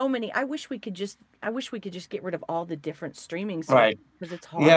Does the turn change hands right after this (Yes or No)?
Yes